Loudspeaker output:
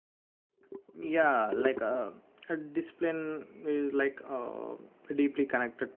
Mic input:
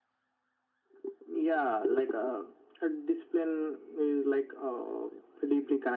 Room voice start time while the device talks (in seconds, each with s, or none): none